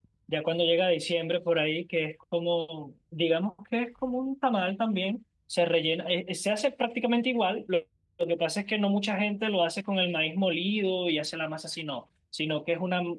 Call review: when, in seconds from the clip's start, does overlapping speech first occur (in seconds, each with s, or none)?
none